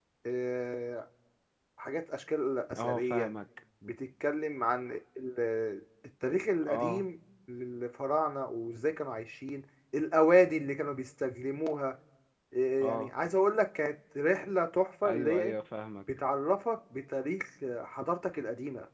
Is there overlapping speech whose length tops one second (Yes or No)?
No